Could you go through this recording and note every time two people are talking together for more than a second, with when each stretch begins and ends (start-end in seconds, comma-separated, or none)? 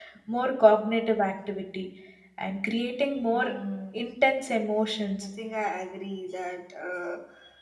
none